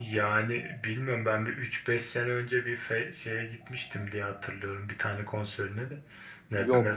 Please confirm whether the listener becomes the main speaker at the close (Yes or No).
No